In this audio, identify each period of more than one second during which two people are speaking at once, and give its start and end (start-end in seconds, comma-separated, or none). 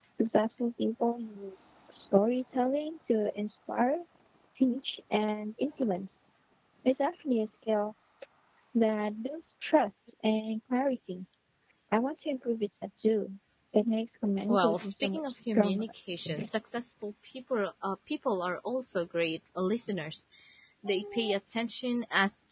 14.5-15.9